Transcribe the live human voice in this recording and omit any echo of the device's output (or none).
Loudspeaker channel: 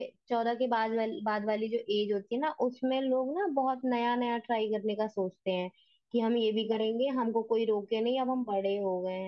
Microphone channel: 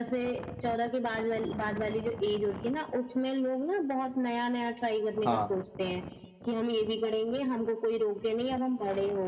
हाँ